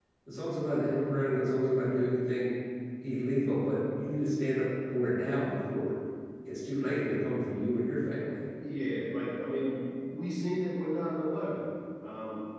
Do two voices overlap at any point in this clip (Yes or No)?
No